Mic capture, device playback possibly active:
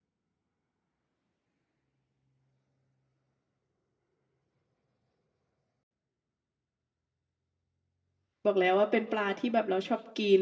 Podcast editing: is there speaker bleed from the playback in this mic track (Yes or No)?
No